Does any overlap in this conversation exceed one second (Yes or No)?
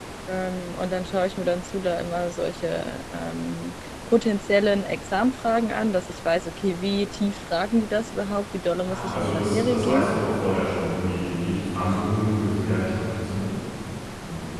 Yes